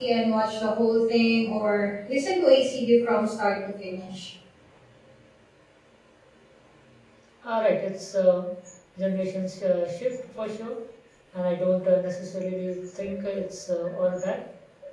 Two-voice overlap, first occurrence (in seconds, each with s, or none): none